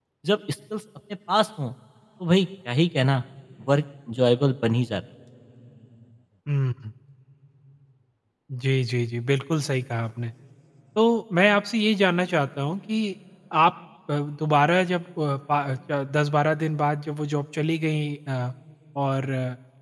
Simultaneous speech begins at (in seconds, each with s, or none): none